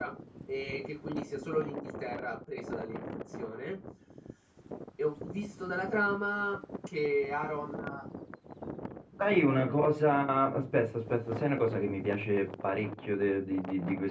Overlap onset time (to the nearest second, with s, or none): none